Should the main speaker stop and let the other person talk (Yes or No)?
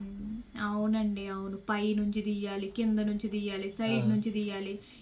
No